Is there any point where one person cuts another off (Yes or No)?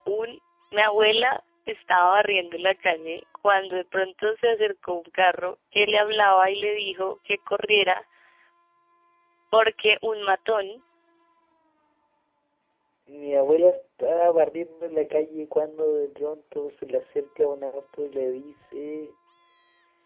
No